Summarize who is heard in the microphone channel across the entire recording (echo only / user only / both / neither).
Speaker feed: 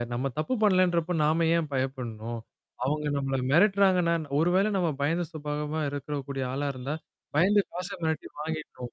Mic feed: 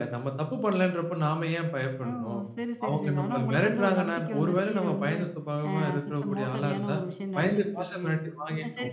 both